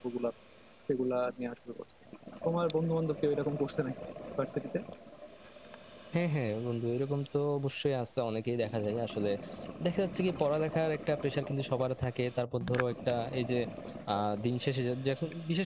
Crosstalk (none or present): none